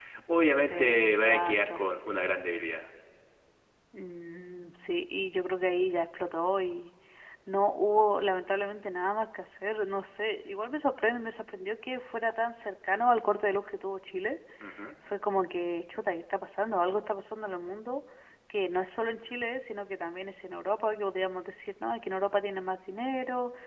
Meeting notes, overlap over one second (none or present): present